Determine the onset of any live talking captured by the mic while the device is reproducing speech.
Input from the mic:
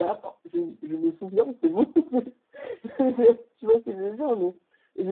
none

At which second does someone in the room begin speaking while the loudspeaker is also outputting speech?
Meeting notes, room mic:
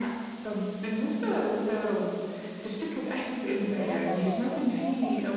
3.6 s

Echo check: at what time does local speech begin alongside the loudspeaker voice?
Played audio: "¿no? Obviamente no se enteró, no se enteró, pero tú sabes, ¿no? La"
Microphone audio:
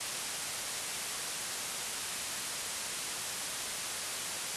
none

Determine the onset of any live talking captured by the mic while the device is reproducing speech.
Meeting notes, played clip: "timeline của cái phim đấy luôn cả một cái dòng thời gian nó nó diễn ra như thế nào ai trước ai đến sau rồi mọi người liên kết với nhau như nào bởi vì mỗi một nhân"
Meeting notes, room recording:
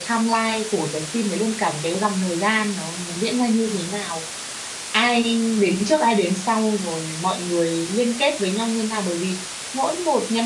none

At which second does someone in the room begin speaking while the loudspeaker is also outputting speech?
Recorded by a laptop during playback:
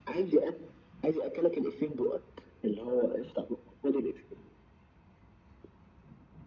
none

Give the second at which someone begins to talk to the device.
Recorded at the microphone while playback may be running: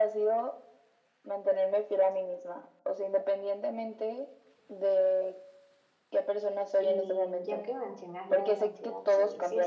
6.8 s

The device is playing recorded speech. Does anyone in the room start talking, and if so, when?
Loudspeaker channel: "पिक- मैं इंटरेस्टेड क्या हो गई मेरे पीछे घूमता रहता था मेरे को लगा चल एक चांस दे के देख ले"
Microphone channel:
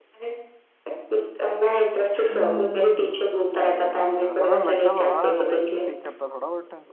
2.1 s

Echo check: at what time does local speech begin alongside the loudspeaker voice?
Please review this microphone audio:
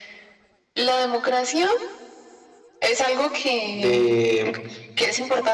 3.7 s

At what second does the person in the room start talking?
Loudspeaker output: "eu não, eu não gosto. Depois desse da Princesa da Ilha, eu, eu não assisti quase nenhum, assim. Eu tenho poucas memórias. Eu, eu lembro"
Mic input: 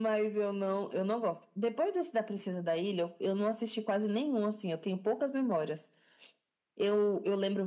none

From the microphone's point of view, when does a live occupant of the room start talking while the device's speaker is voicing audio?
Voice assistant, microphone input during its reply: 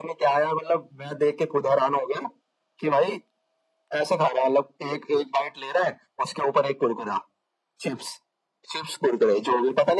none

